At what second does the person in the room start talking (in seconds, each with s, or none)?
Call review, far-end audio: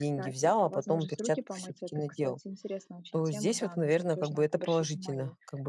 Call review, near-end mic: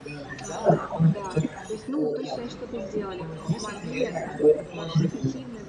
0.4 s